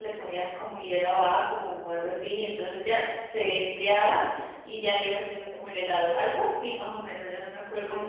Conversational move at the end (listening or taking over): taking over